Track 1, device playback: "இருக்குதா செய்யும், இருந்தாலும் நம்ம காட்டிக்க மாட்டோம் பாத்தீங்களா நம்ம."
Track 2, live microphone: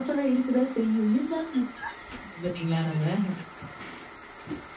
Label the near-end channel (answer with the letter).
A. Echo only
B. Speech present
A